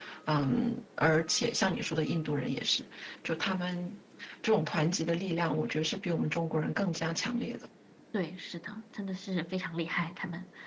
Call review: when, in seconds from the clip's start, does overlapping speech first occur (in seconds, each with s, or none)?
none